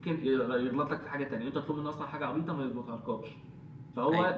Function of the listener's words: listening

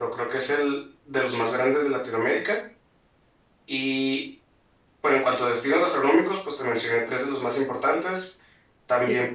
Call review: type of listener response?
taking over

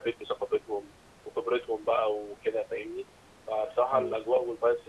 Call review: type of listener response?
listening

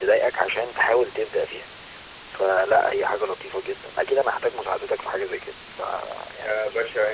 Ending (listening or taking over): taking over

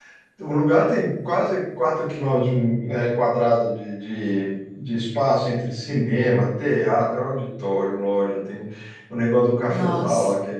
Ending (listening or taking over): listening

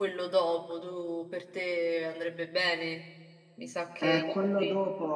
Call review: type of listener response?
taking over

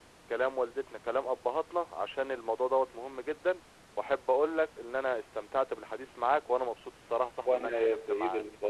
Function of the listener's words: taking over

